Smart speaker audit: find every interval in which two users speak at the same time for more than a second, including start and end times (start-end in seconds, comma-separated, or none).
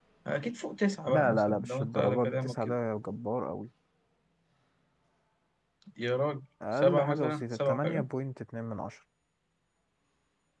1.0-2.7, 6.8-8.0